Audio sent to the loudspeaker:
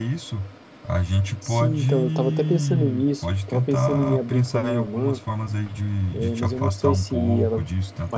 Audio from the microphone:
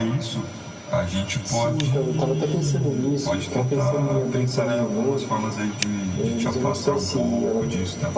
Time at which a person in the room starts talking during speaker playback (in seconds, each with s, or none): none